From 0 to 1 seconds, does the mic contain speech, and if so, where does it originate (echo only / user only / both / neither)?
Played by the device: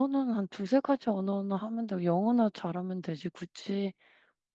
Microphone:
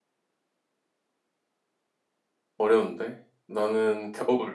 neither